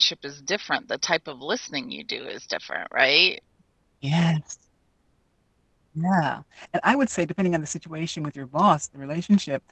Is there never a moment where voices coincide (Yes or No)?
Yes